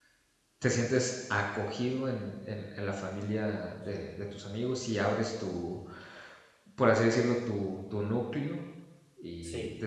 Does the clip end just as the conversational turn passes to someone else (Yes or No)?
No